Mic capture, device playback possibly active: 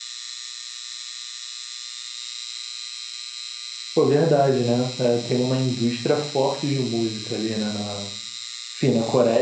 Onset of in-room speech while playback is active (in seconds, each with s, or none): 3.9 s